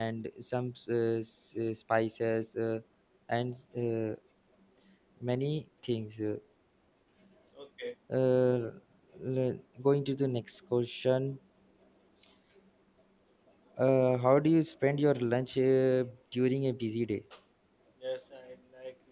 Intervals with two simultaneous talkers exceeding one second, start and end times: none

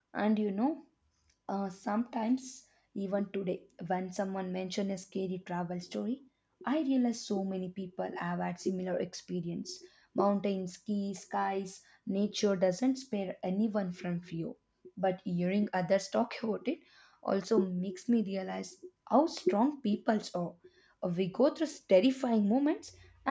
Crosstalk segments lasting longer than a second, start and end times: none

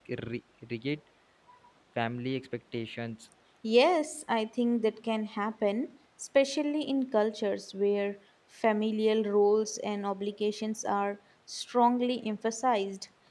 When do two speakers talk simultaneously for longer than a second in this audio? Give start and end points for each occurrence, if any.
none

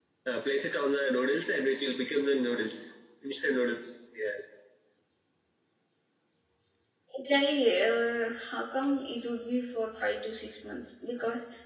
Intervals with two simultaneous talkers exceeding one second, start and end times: none

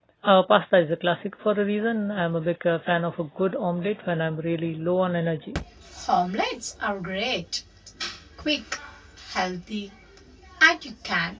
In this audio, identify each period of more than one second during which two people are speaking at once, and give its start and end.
none

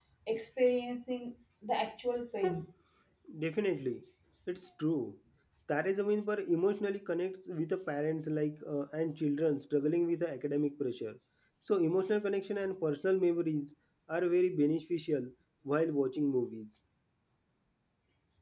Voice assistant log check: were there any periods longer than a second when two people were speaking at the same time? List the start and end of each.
none

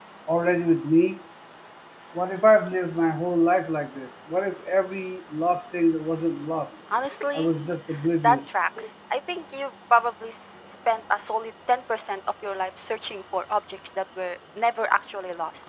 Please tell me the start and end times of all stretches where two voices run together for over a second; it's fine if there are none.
none

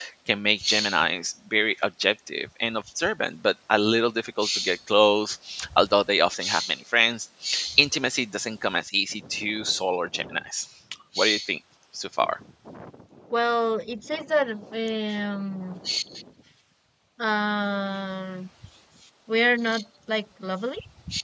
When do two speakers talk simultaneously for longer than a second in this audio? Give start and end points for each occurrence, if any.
none

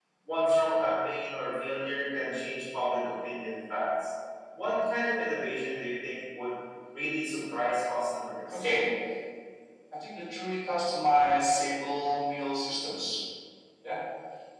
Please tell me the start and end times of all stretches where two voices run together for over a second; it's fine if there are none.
none

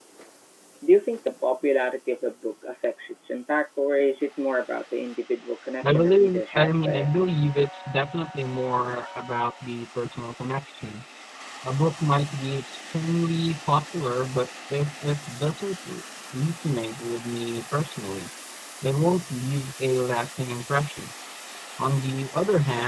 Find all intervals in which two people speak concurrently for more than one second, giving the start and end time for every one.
5.8-7.1

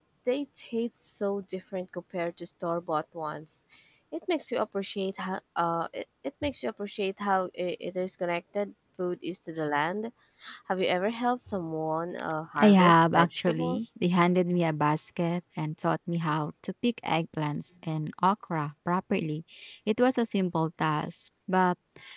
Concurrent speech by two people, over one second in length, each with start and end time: 12.6-13.8

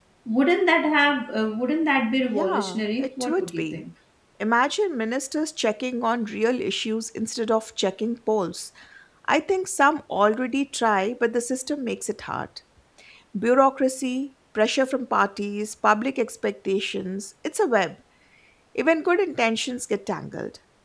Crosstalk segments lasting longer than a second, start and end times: 2.2-3.8

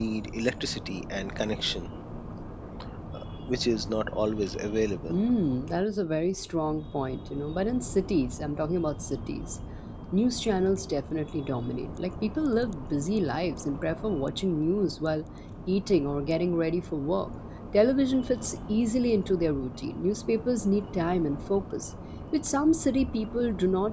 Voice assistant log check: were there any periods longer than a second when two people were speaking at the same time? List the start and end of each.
none

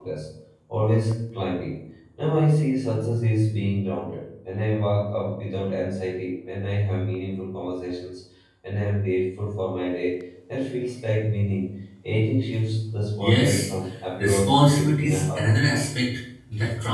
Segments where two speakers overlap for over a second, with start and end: 14.2-15.7

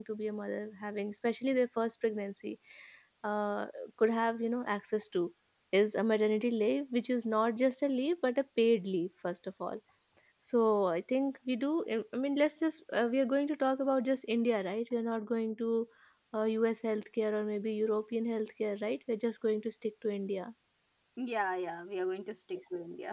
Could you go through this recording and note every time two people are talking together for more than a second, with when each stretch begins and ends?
none

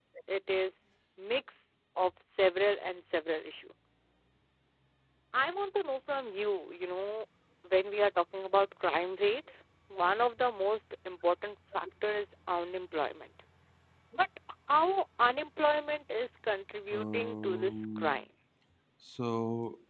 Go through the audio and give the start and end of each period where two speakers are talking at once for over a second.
16.9-18.2

